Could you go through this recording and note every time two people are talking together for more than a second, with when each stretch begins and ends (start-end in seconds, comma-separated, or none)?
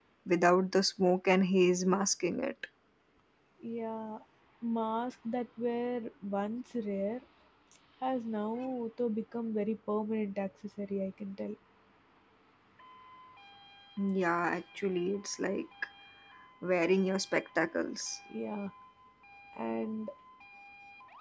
none